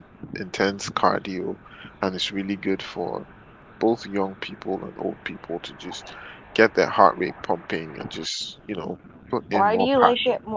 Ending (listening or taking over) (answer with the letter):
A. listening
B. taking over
B